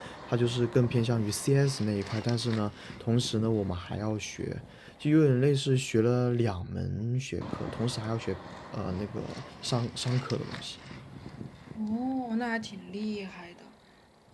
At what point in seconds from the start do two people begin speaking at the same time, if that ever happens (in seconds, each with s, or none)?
none